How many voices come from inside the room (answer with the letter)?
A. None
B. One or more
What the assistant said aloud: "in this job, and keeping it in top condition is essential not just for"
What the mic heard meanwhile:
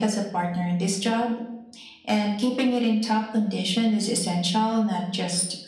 A